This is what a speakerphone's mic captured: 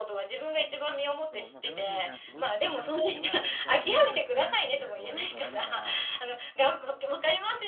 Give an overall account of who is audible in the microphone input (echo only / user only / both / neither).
both